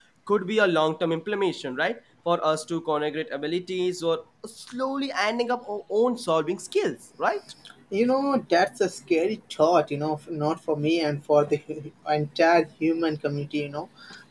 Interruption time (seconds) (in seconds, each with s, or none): none